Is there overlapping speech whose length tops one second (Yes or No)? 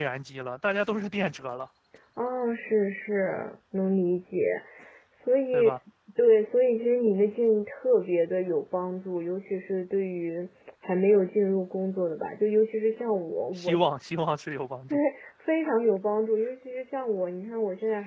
No